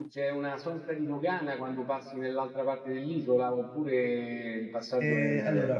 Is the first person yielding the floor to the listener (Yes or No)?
Yes